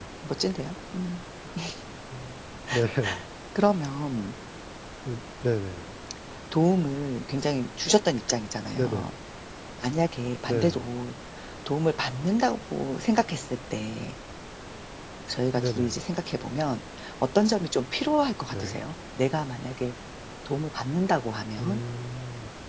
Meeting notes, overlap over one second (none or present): none